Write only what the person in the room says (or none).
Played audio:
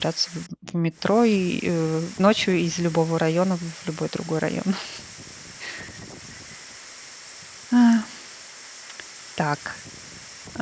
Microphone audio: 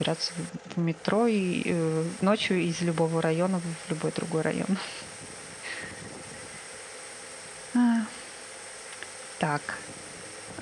none